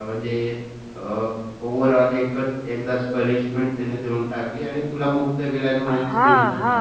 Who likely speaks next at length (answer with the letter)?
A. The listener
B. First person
A